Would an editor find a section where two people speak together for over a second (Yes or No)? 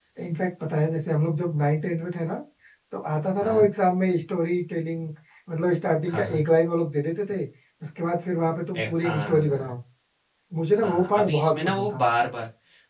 Yes